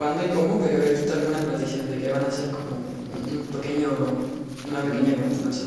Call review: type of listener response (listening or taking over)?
taking over